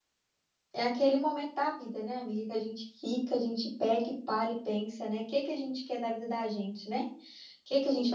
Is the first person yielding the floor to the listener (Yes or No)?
No